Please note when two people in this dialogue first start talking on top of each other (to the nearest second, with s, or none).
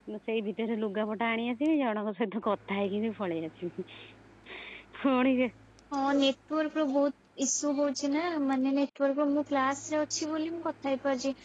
none